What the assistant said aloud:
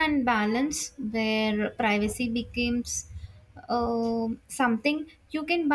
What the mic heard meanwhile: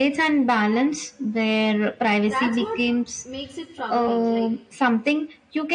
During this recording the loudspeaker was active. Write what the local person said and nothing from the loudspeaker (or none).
that's what makes it troubling like